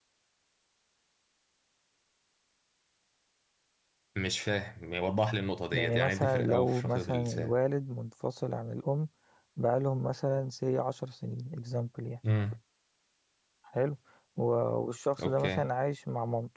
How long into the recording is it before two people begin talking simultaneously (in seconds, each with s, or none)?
5.7 s